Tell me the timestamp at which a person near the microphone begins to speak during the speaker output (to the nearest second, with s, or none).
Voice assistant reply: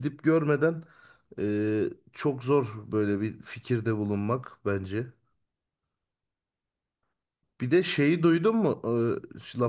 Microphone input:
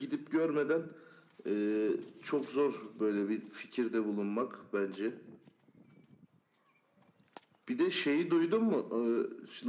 none